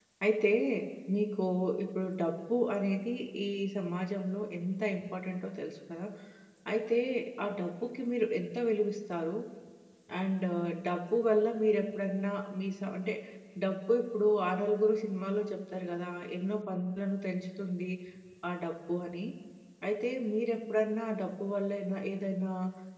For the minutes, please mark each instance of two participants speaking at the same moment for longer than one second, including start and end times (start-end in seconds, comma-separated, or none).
none